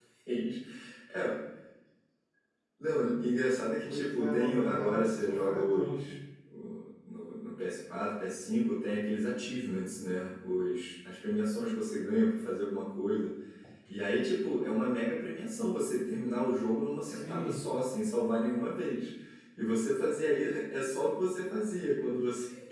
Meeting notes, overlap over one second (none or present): present